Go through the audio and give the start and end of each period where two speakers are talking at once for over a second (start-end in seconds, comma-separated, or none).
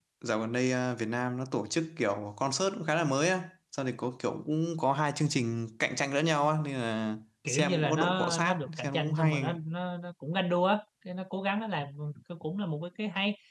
7.5-9.6